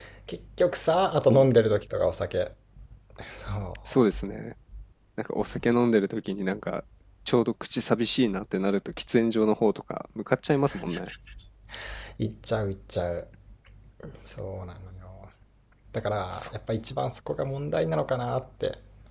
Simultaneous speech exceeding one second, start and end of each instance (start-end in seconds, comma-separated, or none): none